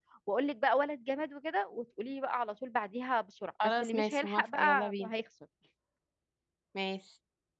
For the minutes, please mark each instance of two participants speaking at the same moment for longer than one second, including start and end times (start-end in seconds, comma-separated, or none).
3.8-5.1